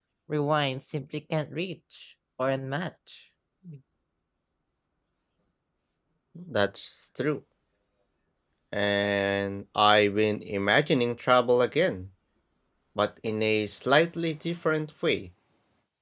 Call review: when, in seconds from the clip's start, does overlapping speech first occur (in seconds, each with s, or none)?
none